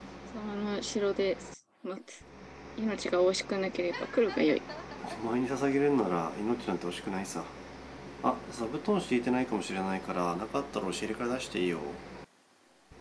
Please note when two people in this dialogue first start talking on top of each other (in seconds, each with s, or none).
none